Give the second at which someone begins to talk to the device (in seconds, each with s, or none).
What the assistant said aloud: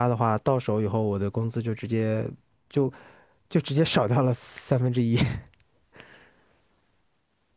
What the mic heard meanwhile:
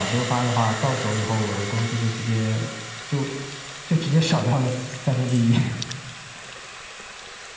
none